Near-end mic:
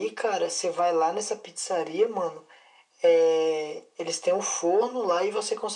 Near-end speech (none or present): none